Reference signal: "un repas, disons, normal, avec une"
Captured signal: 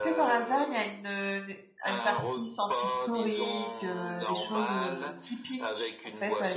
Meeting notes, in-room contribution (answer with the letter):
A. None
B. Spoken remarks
B